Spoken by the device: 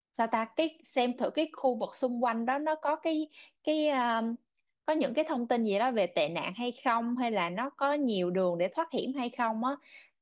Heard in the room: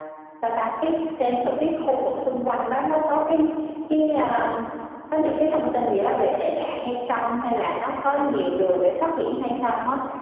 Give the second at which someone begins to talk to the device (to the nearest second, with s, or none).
none